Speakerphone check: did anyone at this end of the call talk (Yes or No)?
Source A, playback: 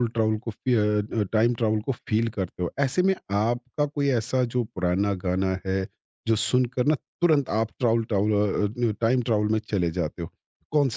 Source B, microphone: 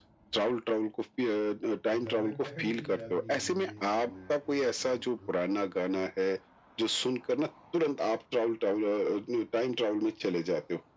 Yes